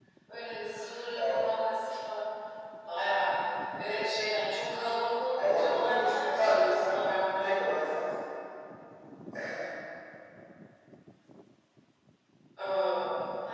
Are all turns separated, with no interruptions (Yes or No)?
No